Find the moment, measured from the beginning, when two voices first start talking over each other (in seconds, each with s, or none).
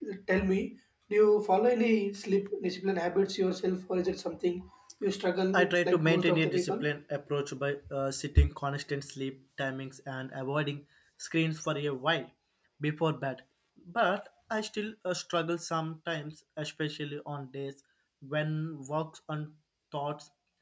5.5 s